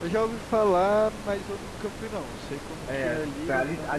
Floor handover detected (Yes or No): Yes